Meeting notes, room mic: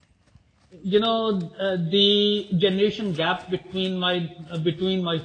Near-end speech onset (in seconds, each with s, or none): 0.8 s